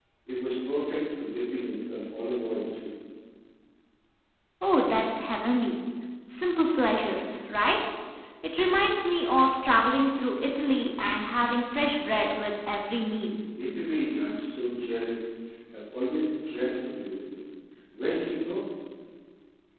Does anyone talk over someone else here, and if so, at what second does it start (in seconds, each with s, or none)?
none